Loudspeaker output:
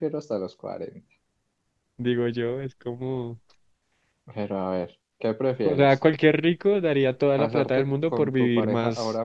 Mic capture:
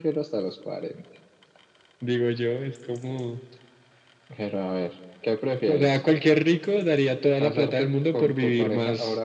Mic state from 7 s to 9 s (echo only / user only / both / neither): echo only